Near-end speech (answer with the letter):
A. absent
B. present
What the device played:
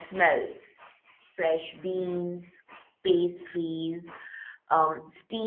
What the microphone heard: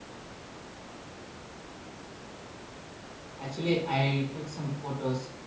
B